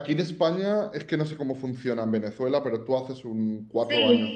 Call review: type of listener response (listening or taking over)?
taking over